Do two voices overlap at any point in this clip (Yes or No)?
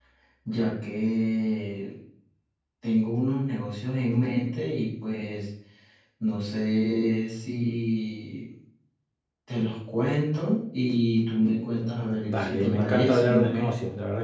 Yes